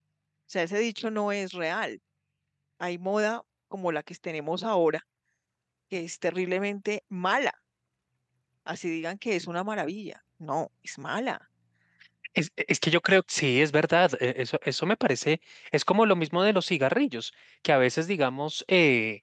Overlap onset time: none

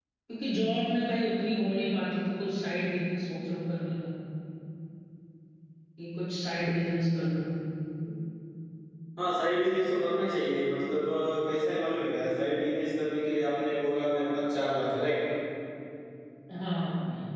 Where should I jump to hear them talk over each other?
none

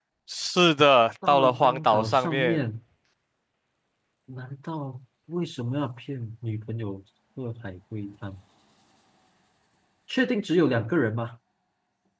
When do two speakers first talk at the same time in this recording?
1.3 s

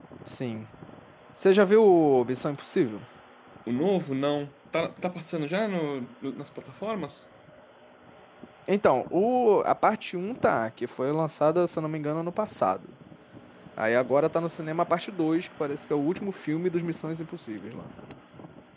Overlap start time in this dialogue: none

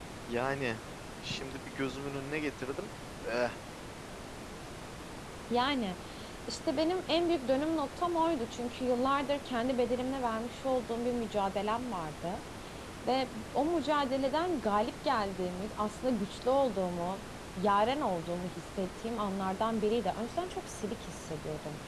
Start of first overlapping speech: none

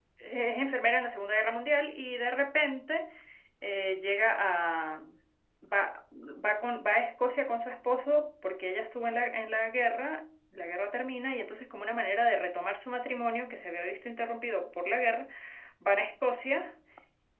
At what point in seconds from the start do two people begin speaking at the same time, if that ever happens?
none

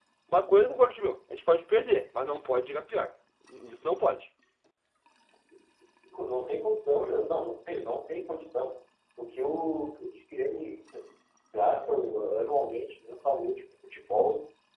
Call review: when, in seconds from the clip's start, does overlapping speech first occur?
none

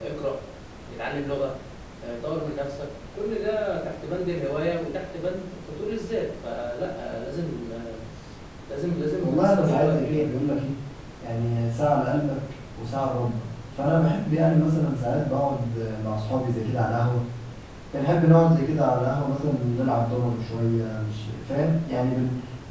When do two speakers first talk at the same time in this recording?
9.2 s

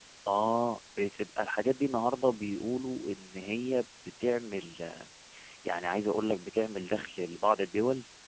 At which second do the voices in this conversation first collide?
none

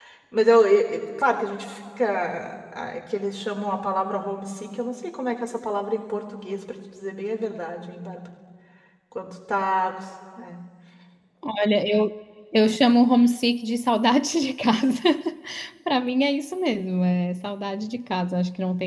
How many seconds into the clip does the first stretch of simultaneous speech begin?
none

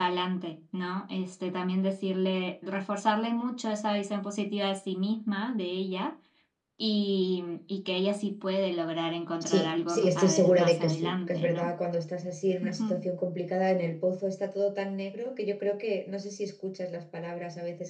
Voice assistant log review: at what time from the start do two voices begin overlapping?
9.4 s

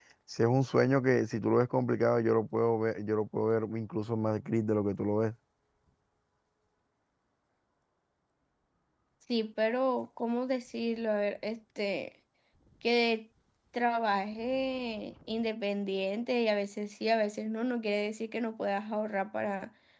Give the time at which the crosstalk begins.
none

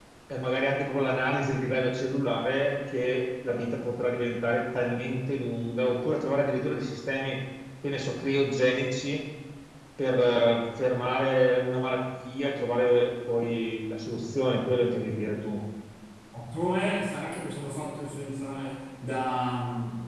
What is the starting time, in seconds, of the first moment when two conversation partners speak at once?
none

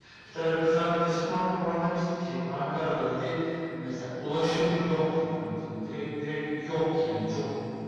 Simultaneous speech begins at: none

